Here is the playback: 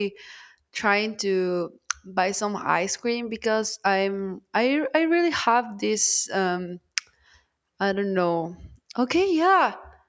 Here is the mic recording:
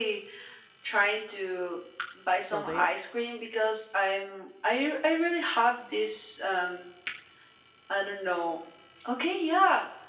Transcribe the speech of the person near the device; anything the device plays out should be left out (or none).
So they